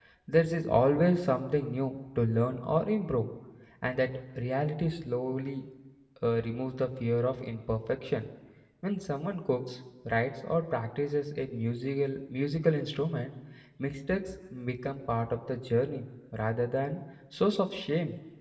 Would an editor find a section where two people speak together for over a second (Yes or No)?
No